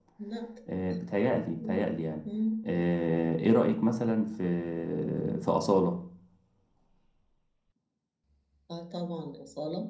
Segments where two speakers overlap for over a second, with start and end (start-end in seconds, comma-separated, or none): none